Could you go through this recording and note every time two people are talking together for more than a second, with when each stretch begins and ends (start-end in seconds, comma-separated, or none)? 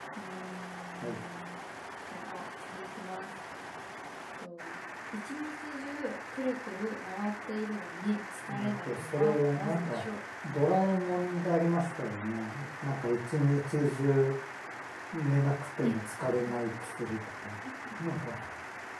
8.5-10.0